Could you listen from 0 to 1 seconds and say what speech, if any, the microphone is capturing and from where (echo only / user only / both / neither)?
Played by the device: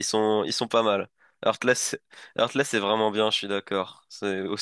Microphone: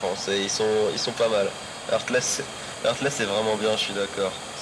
echo only